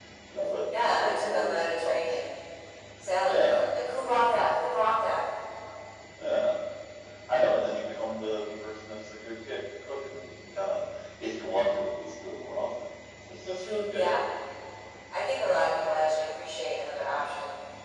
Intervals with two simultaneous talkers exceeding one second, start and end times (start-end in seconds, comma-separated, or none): 0.8-2.0